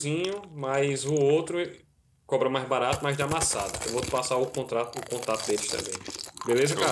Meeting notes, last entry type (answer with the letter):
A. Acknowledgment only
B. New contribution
B